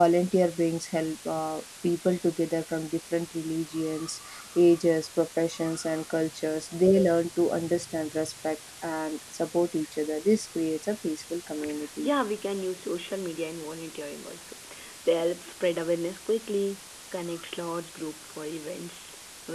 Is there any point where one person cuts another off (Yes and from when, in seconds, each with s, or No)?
No